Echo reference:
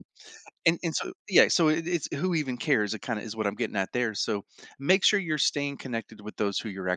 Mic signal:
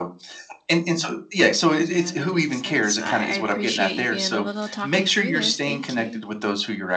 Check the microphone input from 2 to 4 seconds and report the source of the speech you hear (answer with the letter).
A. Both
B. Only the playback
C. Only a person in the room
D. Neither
A